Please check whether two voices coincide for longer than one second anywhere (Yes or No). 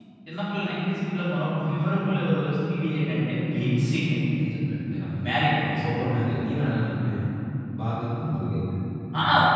No